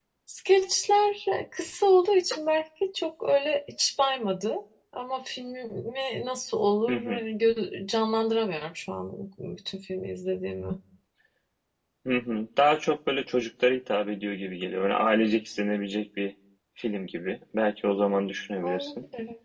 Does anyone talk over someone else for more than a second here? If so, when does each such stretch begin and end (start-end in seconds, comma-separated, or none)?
none